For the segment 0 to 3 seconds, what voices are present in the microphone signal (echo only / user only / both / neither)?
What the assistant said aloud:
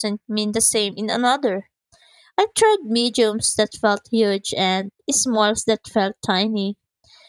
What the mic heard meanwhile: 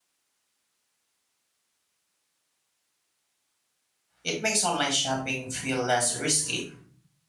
neither